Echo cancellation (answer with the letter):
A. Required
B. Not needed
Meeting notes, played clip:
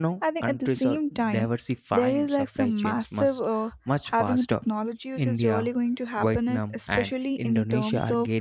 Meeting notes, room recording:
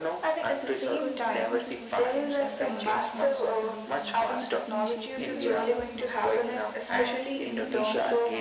A